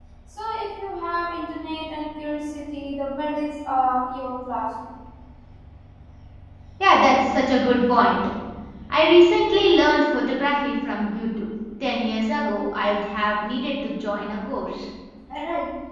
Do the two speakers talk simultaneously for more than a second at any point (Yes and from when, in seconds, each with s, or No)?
No